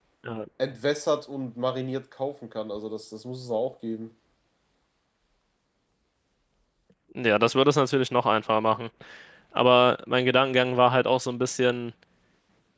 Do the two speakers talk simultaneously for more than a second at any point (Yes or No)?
No